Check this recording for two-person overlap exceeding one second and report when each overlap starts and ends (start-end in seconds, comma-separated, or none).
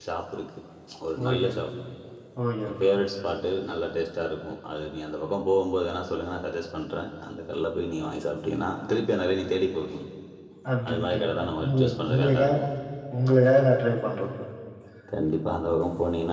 10.9-12.6